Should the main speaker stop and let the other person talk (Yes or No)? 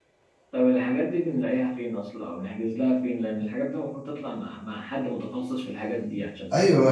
Yes